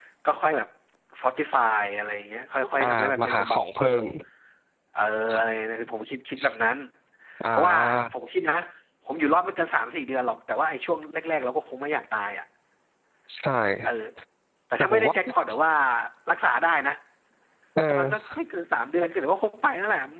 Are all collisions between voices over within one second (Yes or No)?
No